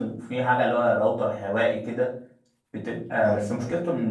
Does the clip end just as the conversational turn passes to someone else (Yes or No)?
No